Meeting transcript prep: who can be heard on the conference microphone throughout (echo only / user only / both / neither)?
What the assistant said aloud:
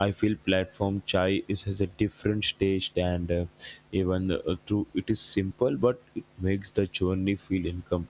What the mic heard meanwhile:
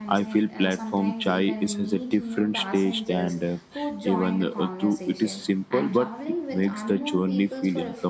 both